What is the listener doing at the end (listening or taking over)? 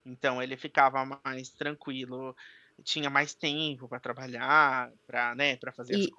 listening